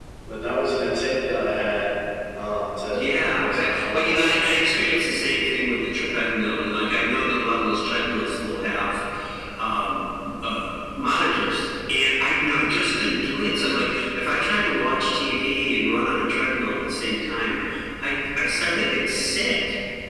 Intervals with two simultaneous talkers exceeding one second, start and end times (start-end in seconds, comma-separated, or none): 2.9-4.4